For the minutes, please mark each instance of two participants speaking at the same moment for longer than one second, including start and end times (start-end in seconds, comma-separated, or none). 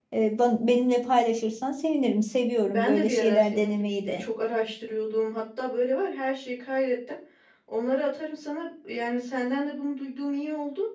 2.7-4.2